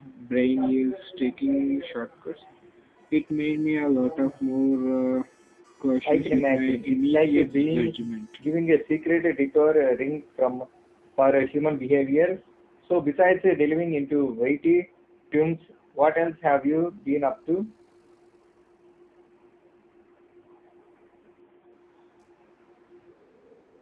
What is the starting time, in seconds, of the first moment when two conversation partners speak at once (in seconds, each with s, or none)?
6.0 s